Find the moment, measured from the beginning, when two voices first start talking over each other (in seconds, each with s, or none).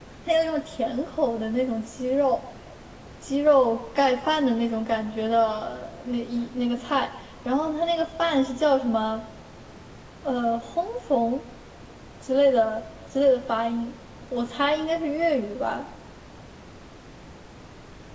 none